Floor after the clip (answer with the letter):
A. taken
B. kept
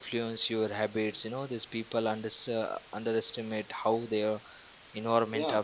A